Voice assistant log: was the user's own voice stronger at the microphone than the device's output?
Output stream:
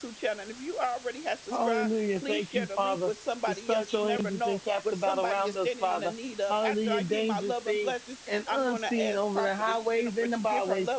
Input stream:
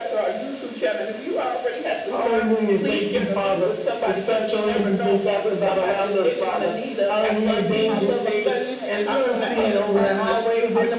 No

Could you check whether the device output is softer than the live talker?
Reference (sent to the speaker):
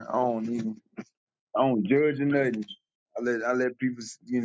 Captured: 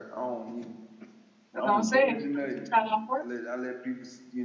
Yes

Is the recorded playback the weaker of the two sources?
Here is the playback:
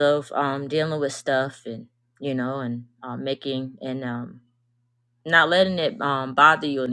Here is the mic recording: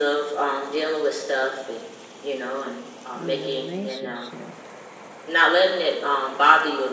No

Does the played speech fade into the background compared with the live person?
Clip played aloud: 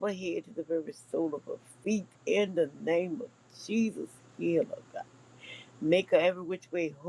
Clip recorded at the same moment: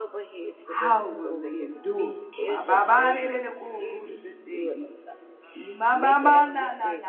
Yes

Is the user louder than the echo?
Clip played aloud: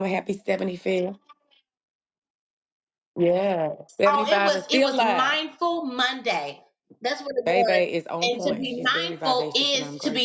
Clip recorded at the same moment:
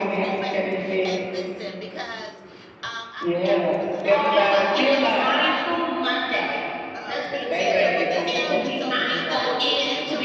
No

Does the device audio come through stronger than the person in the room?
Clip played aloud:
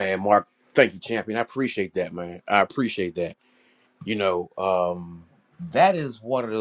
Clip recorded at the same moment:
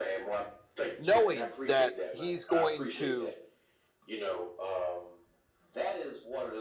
No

